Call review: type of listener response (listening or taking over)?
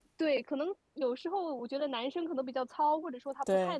listening